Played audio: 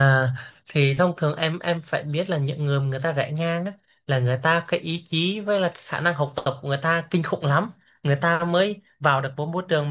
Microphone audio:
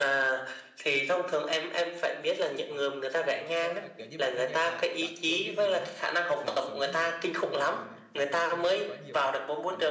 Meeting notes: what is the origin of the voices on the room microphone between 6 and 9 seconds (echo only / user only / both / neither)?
both